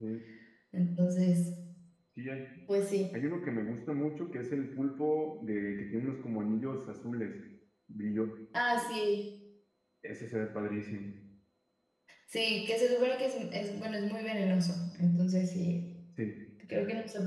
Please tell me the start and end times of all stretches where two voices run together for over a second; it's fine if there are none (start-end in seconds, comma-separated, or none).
none